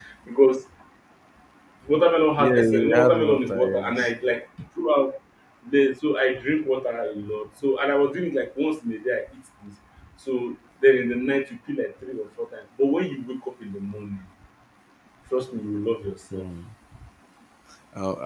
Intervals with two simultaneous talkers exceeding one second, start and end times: 2.4-4.1

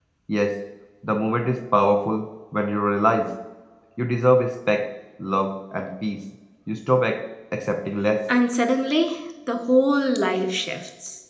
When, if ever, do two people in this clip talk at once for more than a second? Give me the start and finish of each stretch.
none

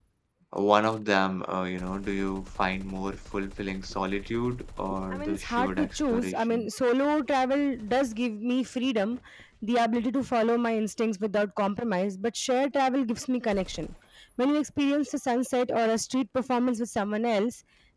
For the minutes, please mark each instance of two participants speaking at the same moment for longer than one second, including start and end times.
5.1-6.7

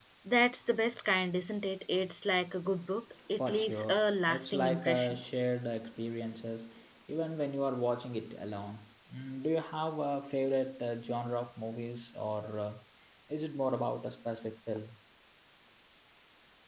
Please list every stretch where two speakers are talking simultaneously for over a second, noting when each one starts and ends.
3.4-5.2

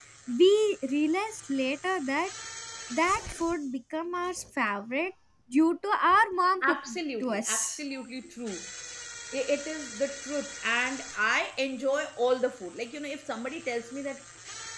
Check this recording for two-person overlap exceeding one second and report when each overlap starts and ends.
6.6-7.8

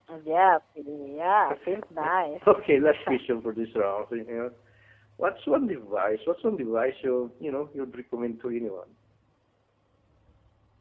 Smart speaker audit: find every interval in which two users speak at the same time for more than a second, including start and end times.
none

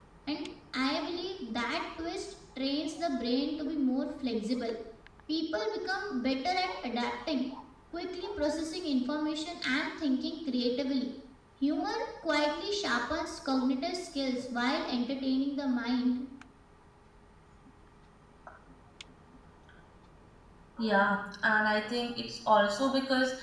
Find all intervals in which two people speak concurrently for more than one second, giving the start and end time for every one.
none

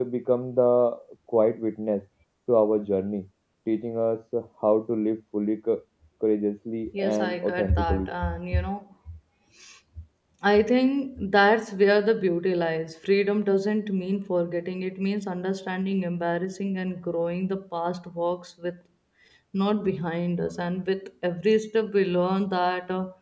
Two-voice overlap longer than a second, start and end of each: 6.9-8.1

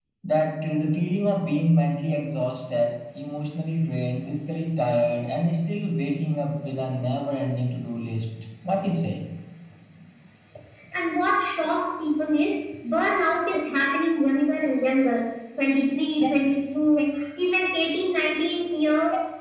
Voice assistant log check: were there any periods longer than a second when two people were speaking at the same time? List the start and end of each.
none

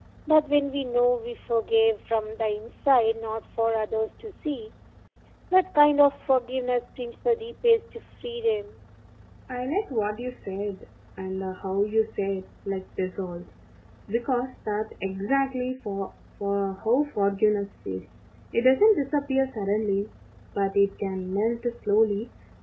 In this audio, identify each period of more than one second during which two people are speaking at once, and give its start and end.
none

